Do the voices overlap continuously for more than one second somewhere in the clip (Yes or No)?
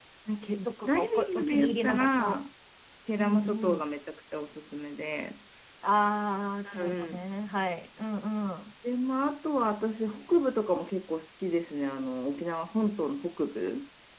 Yes